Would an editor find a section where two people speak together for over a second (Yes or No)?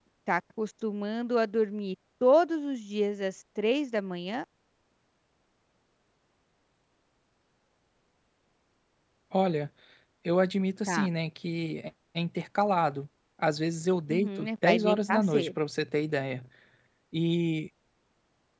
Yes